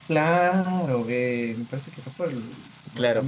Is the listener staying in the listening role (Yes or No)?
No